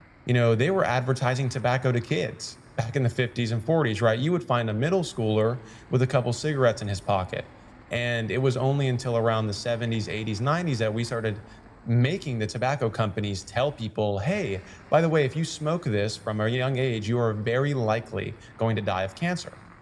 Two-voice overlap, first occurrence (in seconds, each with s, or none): none